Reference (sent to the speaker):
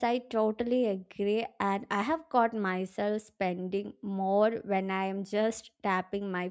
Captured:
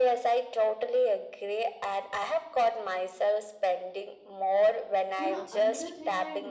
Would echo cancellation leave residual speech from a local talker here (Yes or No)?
Yes